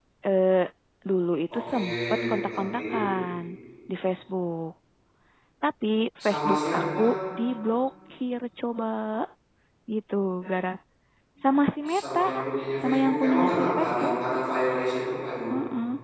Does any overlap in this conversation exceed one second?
Yes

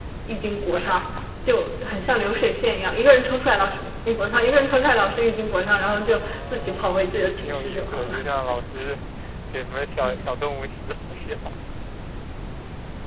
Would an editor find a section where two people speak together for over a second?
Yes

